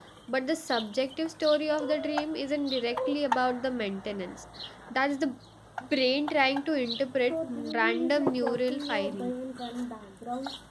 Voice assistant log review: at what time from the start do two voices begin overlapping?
7.3 s

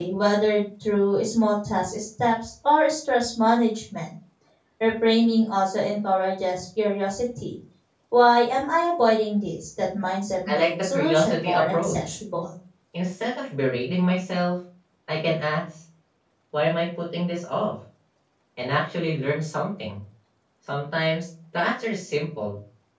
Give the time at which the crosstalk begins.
10.4 s

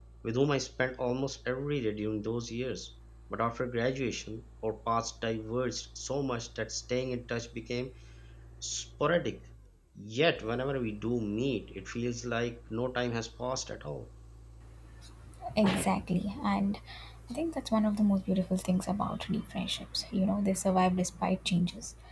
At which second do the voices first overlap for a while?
none

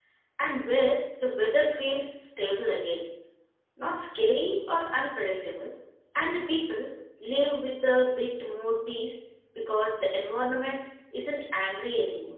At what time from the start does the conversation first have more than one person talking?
none

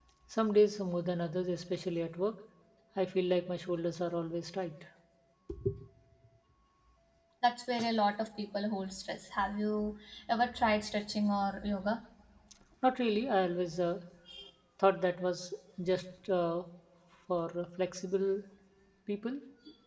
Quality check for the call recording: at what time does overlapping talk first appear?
none

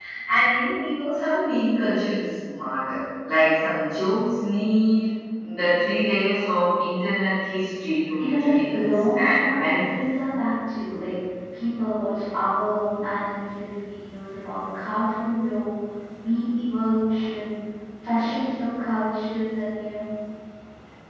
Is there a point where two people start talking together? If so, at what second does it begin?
8.2 s

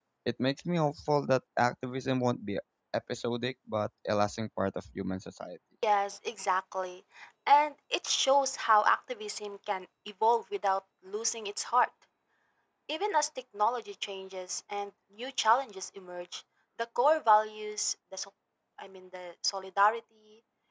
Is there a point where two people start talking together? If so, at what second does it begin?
none

